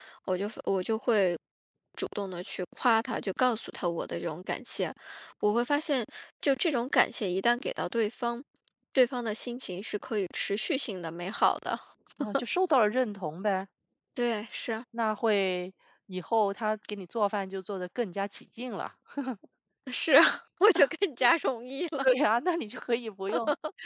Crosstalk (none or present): none